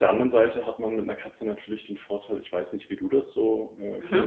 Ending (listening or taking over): listening